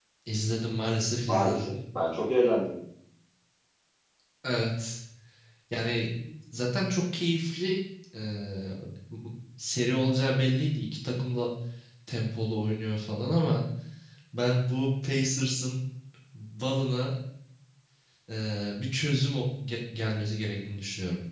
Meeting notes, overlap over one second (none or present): none